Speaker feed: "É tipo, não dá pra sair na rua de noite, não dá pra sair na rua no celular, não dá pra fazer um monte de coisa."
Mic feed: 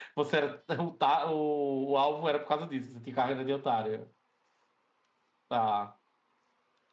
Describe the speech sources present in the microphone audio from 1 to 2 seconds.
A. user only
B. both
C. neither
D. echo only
A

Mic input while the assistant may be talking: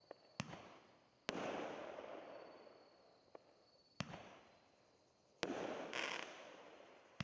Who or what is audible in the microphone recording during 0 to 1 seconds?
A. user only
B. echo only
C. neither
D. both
C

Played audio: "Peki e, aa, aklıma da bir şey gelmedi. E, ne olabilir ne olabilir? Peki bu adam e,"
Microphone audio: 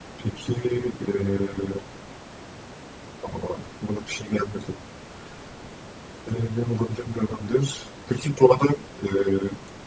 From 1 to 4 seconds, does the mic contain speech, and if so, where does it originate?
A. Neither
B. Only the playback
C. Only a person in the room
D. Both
B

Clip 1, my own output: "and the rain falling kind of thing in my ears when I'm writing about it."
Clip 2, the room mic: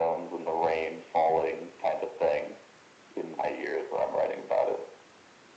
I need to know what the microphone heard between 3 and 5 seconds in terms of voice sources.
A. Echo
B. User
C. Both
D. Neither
A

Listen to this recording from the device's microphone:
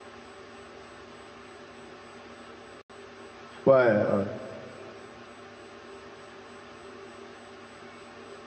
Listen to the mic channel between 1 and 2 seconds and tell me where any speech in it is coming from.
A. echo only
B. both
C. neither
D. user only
C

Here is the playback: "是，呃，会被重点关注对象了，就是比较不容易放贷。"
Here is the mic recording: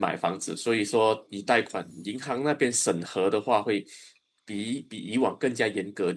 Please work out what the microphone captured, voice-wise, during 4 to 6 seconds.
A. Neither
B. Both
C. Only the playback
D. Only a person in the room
D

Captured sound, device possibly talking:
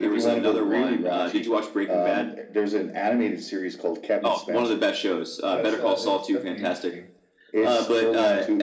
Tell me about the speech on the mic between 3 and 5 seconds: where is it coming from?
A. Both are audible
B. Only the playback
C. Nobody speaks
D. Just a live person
B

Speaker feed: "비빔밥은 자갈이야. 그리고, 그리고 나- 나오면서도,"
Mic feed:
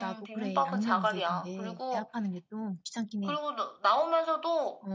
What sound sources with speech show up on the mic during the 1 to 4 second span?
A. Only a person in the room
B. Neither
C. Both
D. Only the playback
C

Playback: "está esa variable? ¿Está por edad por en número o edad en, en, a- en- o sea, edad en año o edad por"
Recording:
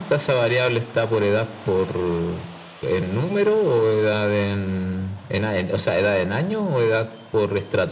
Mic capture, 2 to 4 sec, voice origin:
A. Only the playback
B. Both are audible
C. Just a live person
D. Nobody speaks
A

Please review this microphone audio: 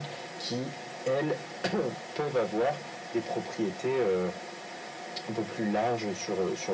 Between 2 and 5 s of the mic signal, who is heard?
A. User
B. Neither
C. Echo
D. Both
C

